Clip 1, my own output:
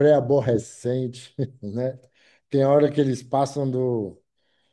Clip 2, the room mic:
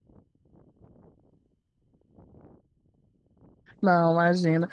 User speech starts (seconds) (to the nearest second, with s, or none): 4 s